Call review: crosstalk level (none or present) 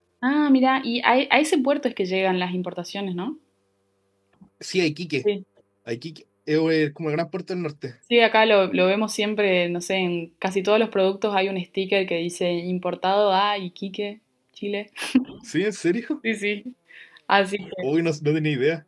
none